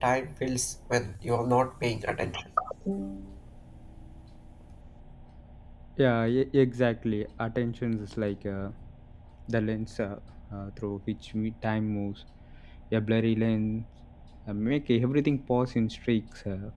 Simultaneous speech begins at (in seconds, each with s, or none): none